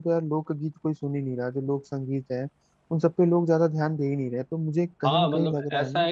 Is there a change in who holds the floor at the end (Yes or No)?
Yes